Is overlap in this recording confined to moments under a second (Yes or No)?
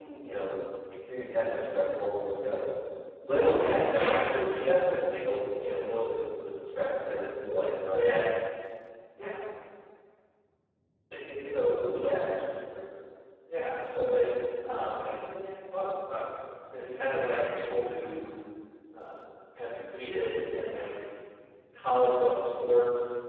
No